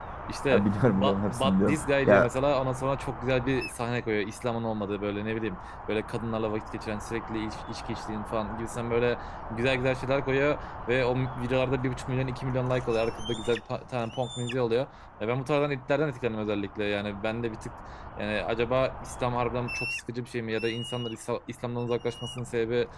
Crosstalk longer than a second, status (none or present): present